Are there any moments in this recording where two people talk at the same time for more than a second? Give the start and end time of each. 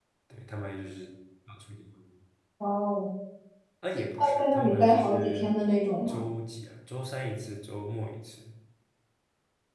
4.2-5.5

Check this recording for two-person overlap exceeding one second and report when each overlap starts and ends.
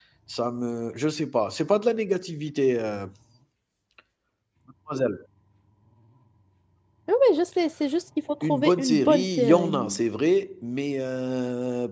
8.4-9.8

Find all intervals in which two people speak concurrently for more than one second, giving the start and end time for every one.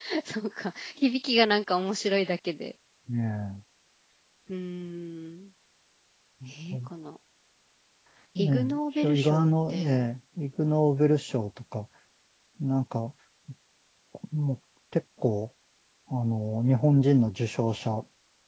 8.4-10.0

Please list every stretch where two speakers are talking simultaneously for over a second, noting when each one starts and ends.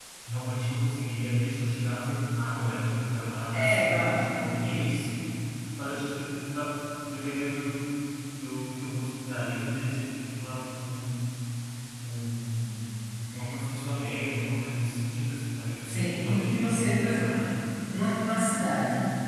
3.5-5.1, 15.8-17.3

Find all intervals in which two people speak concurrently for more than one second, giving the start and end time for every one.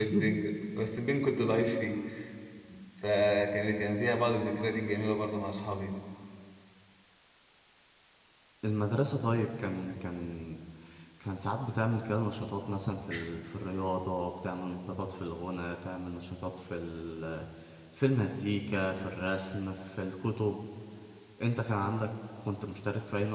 none

